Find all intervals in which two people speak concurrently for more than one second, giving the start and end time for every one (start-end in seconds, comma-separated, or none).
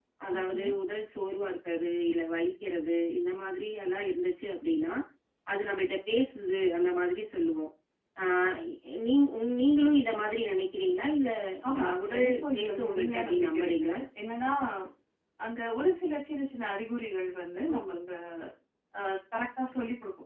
11.8-14.0